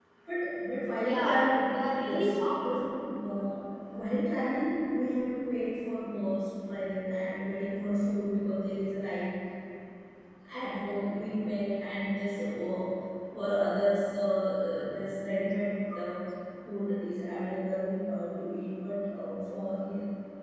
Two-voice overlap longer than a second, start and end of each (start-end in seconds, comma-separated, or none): 1.0-2.7